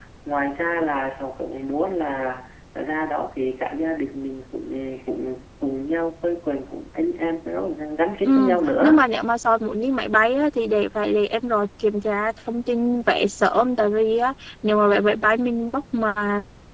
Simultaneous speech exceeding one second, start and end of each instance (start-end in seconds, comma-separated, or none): none